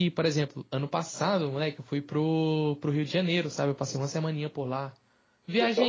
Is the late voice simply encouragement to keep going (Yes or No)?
Yes